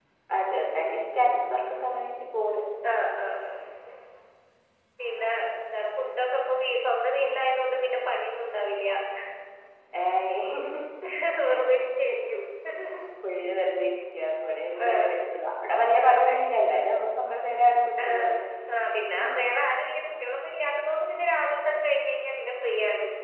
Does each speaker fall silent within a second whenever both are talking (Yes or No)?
Yes